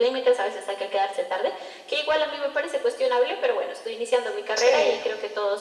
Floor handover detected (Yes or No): No